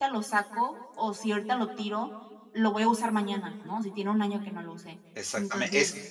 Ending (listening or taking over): taking over